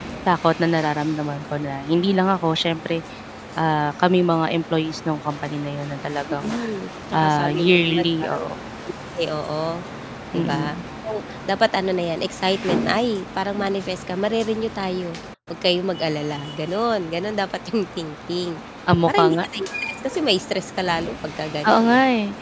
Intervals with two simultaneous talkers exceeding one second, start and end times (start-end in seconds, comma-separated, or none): 7.1-8.4